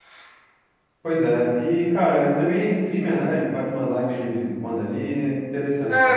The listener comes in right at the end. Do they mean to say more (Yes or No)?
Yes